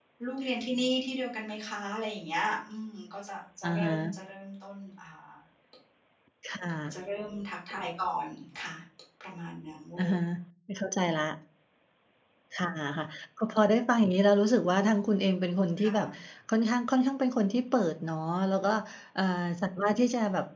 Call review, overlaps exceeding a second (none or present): none